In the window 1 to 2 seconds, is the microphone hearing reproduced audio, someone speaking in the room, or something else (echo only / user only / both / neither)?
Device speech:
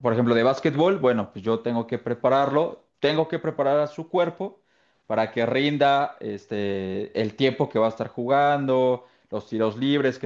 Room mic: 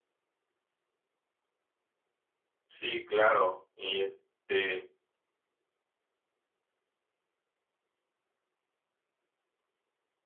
neither